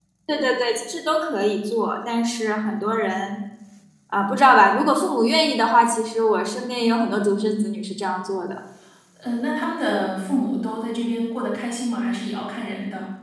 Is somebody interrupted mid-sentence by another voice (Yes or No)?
No